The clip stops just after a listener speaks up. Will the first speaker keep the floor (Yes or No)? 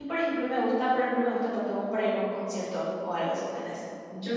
No